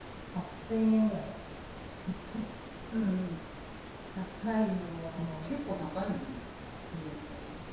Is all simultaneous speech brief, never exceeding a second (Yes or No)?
Yes